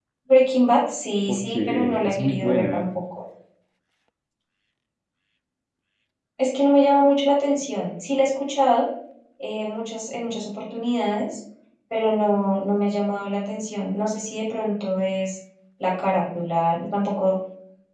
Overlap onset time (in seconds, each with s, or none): 1.3 s